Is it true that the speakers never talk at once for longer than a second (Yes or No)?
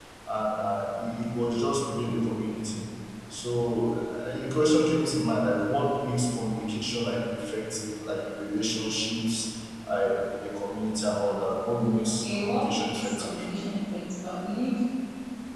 No